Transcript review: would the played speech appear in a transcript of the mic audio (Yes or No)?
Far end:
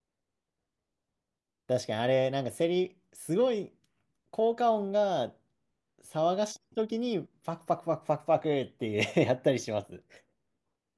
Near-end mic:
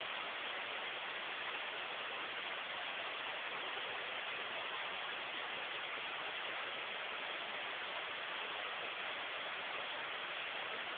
No